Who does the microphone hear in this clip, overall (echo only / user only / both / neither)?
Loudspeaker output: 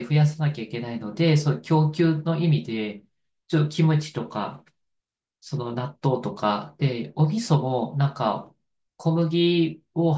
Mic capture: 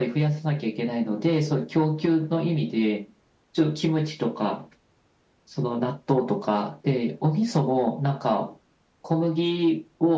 echo only